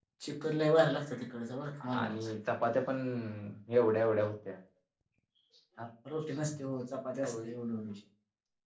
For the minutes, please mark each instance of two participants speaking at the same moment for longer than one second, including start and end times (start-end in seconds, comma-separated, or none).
none